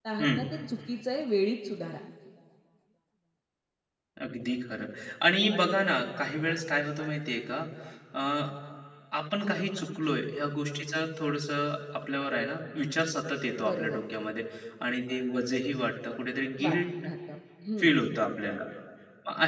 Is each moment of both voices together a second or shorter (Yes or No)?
Yes